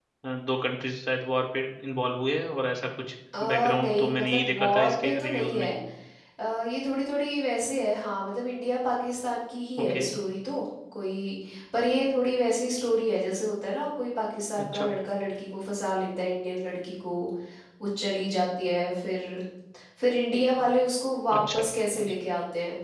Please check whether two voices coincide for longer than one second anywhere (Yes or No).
Yes